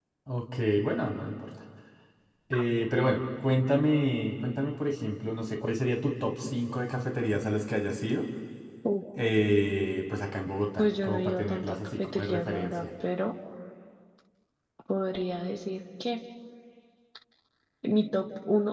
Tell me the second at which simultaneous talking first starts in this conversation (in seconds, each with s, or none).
10.8 s